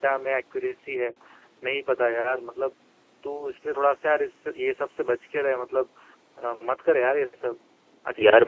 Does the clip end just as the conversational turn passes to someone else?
Yes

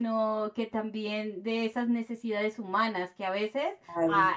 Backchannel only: Yes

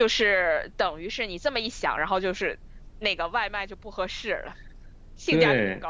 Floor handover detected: Yes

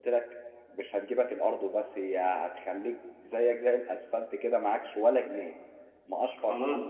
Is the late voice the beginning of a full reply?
Yes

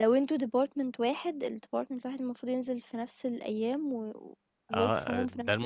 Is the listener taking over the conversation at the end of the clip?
Yes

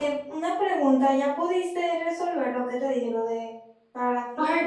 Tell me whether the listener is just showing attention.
No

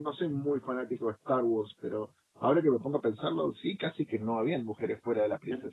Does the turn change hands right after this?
Yes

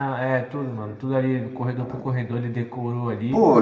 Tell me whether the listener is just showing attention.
No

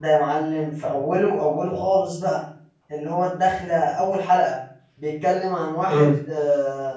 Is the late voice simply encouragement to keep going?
Yes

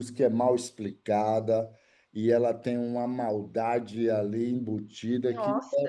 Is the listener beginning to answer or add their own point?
No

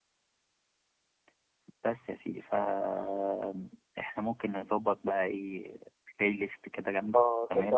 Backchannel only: No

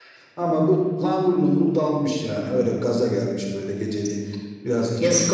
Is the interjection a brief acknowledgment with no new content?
No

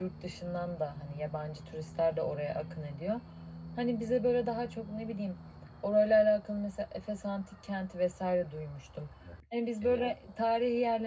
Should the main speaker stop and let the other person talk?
No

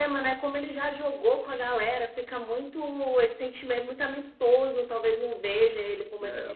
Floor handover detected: Yes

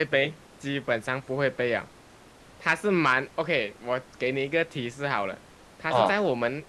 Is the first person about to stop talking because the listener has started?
No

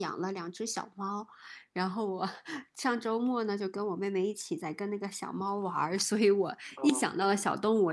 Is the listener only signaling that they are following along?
Yes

